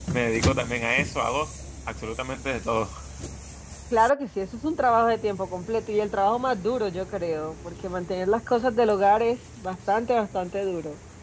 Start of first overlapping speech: none

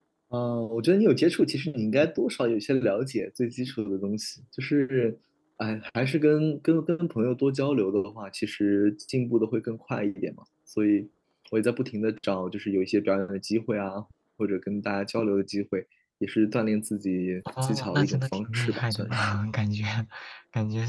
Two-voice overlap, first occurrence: 17.6 s

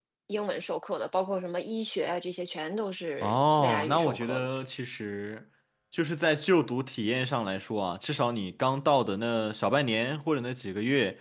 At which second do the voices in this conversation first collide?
3.2 s

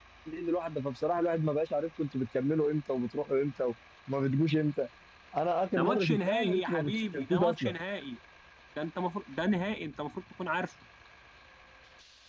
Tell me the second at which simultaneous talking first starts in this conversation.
5.8 s

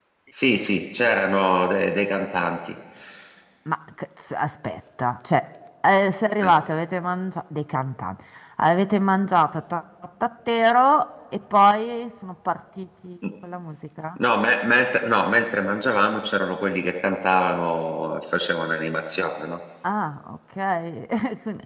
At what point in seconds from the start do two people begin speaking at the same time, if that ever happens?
none

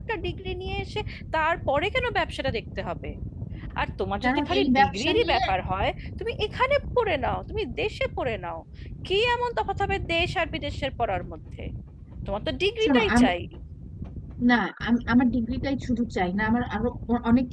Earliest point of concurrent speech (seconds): 4.2 s

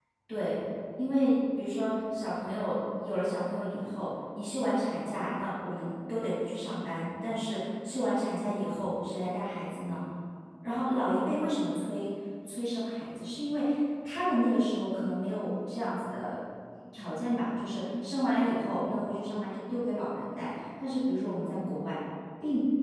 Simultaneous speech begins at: none

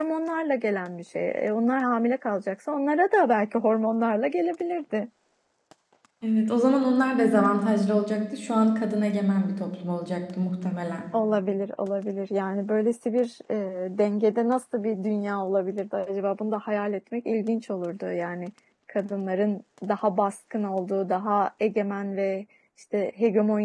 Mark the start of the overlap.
none

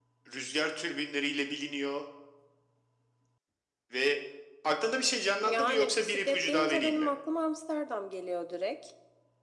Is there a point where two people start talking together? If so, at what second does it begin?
5.4 s

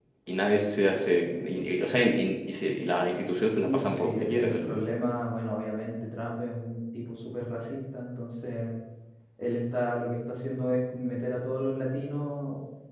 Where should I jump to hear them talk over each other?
3.6 s

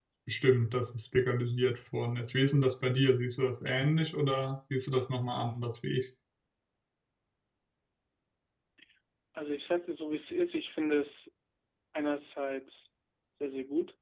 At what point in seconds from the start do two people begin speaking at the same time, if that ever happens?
none

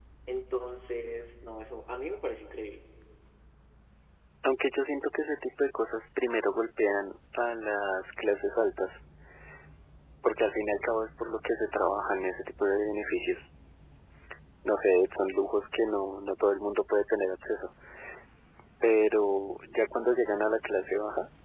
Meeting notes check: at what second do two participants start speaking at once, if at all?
none

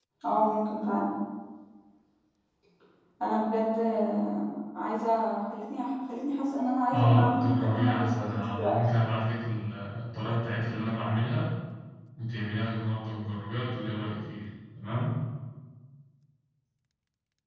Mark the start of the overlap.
6.9 s

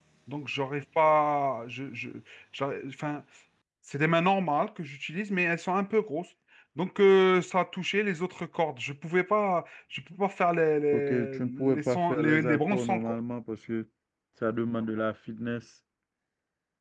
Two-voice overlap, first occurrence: 10.9 s

